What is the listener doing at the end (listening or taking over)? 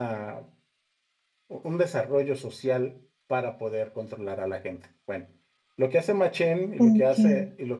listening